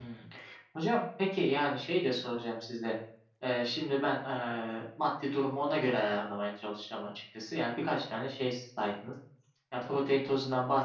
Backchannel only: Yes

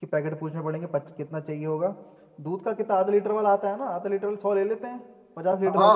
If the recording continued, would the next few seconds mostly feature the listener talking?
Yes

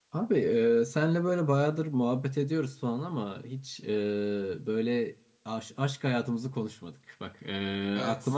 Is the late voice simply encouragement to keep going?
Yes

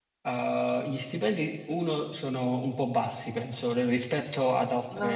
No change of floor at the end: Yes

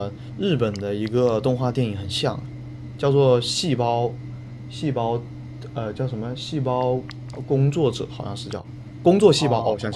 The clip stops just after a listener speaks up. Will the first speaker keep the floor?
No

